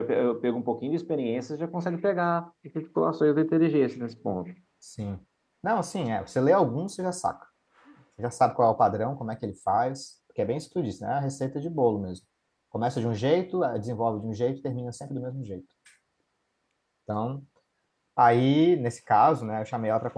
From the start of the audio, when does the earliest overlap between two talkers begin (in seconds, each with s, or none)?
none